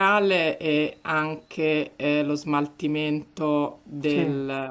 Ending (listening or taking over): listening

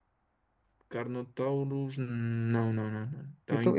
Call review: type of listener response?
taking over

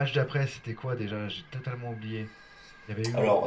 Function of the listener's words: taking over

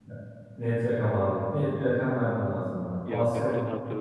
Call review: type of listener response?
taking over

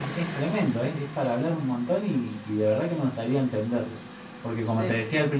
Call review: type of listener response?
listening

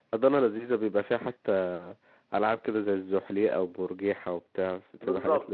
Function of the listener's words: taking over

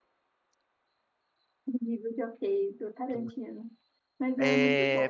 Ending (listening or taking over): taking over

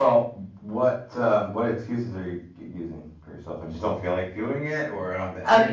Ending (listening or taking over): taking over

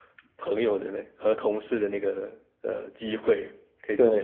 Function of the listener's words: taking over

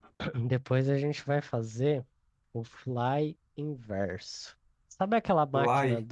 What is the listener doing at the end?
listening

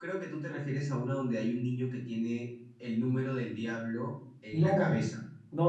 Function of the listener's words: taking over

